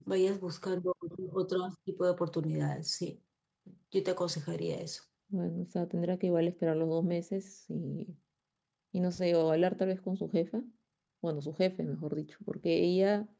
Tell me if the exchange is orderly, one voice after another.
Yes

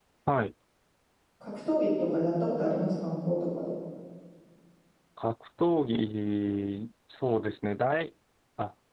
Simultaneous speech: No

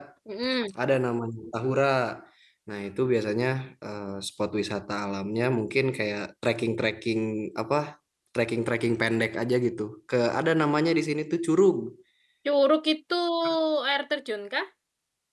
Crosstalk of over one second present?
No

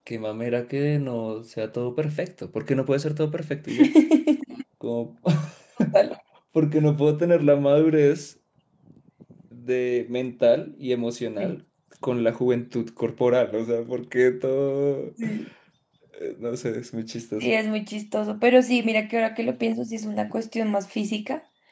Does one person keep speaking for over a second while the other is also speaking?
No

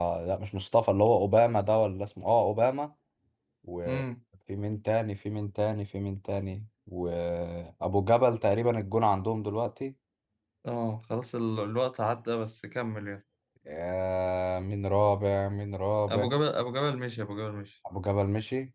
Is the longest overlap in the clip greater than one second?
No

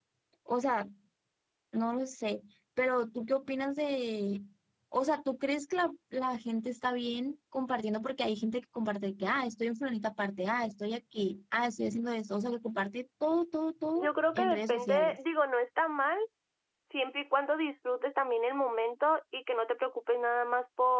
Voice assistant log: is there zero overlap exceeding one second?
No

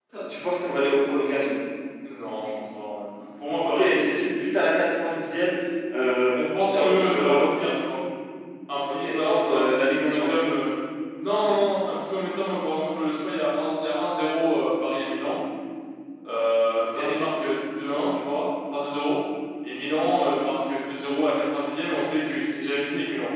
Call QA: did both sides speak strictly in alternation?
No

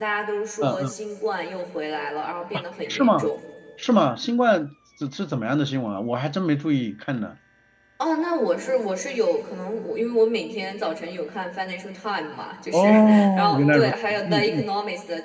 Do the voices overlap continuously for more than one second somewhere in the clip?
Yes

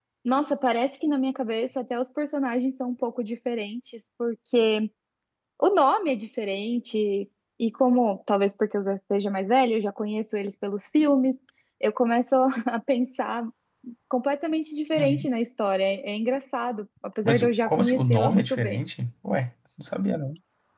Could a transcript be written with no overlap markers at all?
No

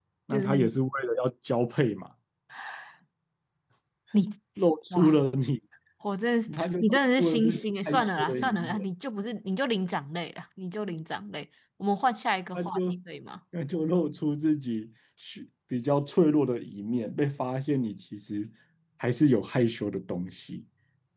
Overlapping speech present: Yes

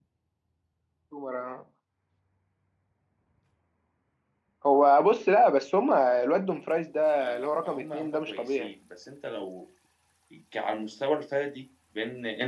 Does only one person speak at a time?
No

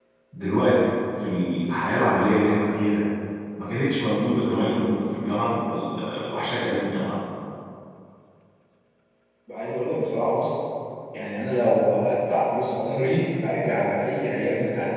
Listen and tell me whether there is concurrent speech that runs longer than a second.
No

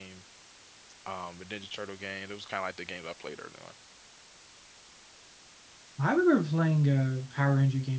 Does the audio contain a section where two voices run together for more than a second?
No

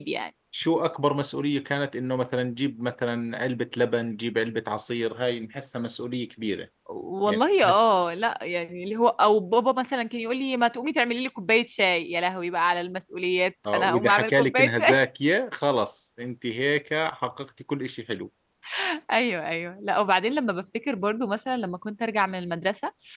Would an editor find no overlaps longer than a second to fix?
No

